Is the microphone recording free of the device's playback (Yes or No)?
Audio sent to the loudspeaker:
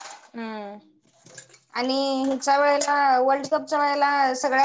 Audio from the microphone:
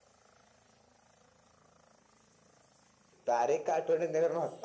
Yes